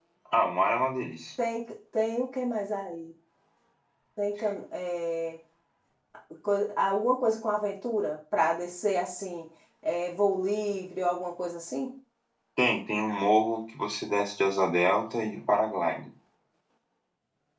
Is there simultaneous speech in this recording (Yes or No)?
No